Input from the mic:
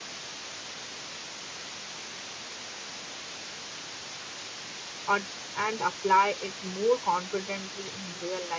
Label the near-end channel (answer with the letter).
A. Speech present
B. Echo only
A